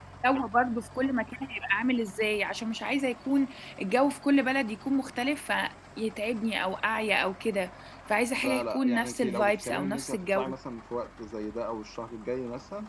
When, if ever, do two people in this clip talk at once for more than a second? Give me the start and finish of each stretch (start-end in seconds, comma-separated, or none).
8.4-10.4